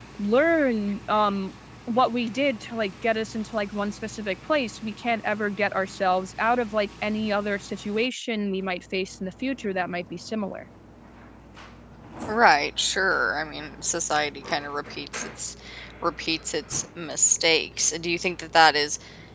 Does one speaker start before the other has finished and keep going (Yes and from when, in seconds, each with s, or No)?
No